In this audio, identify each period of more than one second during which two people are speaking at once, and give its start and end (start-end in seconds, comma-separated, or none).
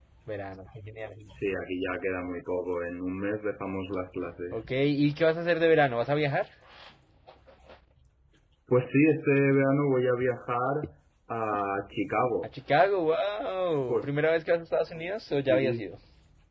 none